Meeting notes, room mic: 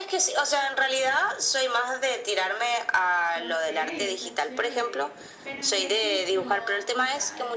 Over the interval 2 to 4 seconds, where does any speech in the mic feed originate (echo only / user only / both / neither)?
both